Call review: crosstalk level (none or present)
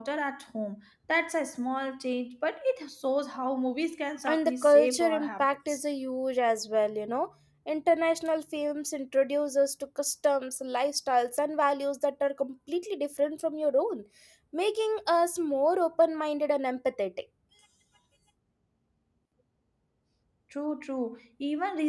present